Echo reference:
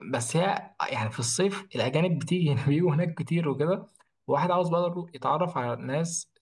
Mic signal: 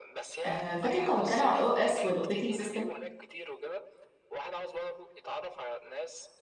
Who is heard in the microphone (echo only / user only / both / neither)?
both